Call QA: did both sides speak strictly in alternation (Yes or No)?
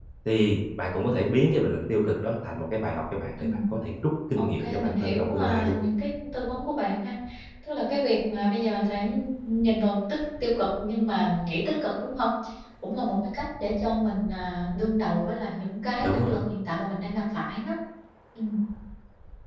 No